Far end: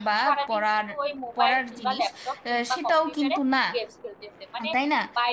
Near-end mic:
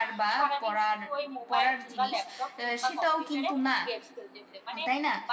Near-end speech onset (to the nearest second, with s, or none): none